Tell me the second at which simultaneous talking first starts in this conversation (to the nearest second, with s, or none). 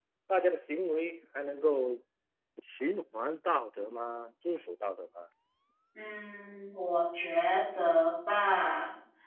none